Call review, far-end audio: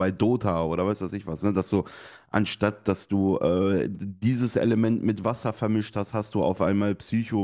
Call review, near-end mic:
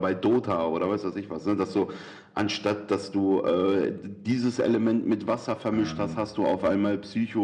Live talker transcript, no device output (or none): Äh,